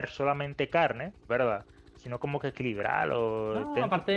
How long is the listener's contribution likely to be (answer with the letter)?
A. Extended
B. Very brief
A